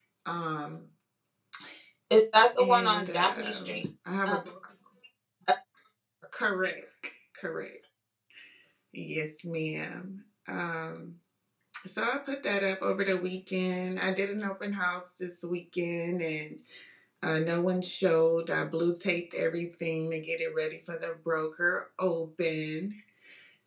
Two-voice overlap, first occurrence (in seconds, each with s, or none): 2.6 s